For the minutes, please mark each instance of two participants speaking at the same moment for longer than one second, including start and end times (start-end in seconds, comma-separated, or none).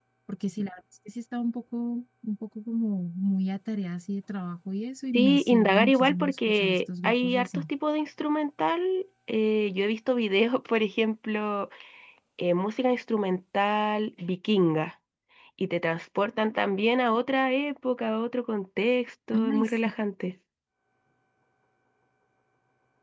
5.1-7.6